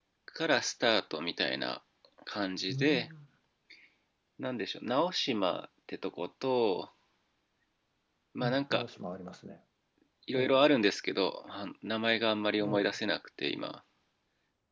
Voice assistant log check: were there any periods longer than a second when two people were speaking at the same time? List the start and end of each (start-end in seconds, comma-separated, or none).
none